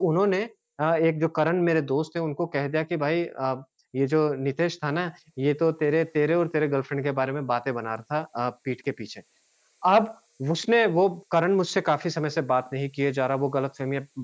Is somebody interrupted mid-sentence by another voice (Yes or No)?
No